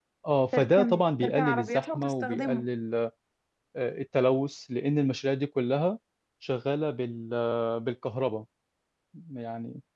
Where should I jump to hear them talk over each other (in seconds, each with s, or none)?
0.5 s